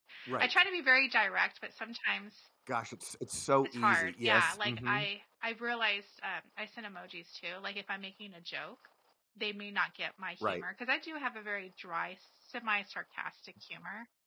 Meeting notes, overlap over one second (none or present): present